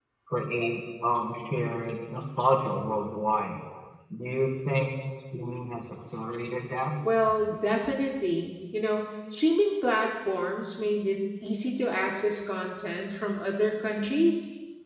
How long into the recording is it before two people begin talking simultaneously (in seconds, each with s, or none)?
none